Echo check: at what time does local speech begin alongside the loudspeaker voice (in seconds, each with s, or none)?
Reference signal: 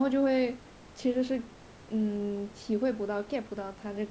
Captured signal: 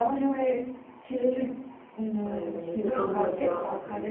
2.2 s